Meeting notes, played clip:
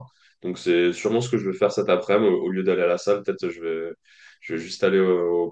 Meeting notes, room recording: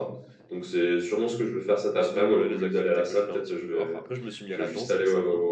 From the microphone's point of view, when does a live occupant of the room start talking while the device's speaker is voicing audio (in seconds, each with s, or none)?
1.9 s